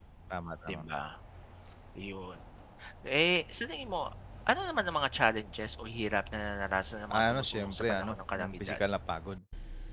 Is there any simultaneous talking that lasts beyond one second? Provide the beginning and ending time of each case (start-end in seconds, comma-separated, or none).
7.1-8.8